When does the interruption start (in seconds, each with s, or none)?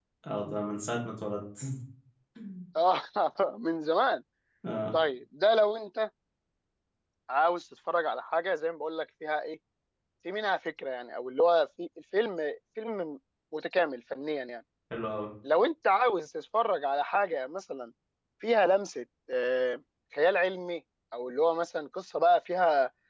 none